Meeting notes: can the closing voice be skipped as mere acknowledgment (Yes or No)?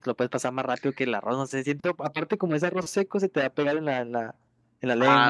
No